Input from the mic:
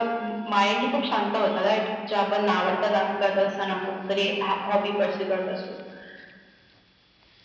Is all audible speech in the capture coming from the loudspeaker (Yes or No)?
Yes